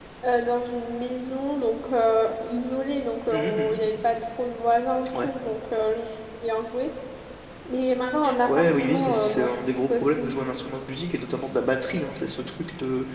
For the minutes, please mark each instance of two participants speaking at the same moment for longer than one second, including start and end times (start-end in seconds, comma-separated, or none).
8.5-10.3